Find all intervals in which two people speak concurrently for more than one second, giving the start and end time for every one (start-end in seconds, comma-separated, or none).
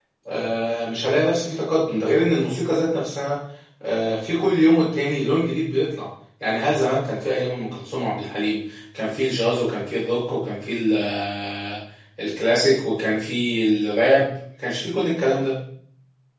none